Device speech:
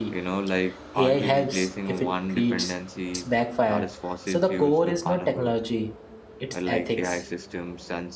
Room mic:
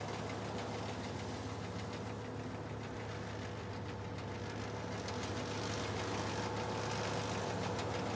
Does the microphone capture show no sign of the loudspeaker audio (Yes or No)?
Yes